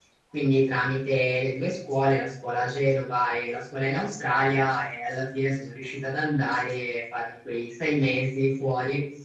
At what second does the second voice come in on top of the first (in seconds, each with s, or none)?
none